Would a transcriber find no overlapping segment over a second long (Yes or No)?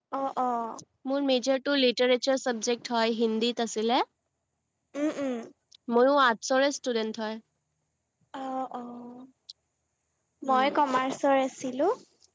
Yes